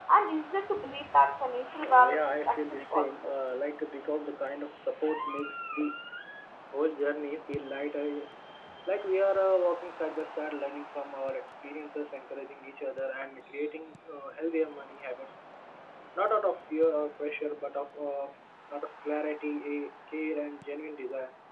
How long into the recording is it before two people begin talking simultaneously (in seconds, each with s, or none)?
1.7 s